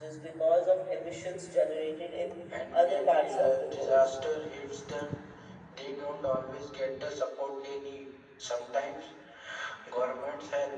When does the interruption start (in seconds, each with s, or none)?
2.7 s